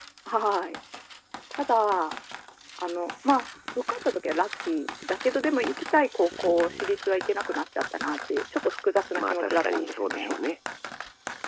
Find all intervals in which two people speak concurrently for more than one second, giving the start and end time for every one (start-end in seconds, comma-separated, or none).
9.1-10.3